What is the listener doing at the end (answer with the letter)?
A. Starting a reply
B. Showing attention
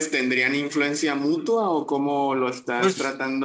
A